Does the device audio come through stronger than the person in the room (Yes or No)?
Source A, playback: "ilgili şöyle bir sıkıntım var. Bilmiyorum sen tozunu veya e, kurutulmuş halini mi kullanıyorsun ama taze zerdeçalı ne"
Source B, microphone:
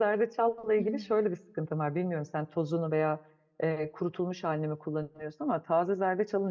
Yes